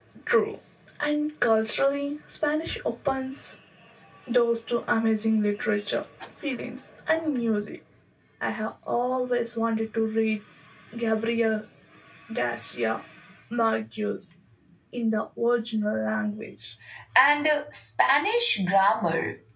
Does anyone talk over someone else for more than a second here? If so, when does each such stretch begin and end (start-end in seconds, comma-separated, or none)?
none